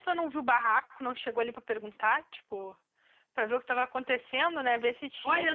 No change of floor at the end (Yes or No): No